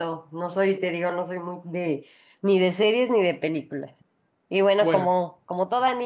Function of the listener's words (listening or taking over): listening